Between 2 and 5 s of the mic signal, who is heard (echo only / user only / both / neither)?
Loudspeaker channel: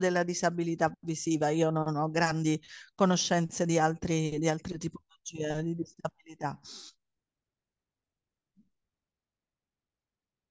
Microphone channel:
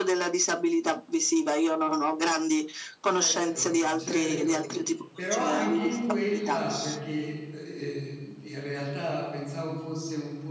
both